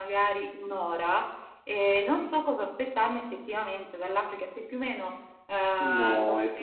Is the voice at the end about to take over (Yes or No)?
Yes